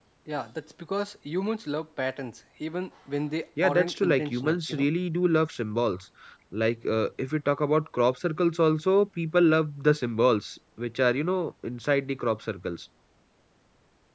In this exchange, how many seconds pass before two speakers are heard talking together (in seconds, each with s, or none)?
3.6 s